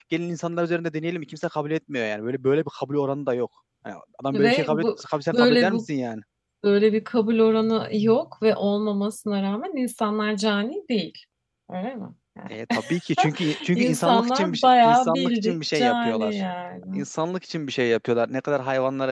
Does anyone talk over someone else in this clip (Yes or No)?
Yes